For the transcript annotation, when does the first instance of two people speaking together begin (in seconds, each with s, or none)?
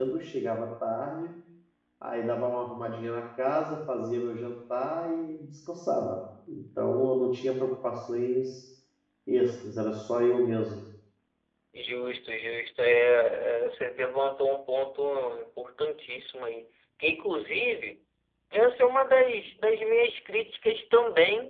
none